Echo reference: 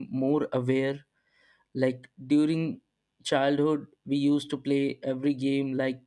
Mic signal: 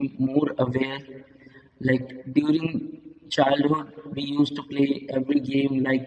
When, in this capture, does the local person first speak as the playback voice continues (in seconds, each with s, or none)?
none